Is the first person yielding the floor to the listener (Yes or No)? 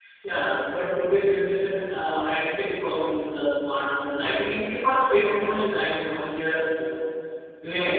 Yes